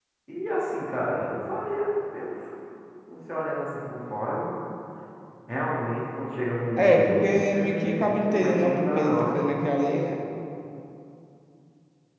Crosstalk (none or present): present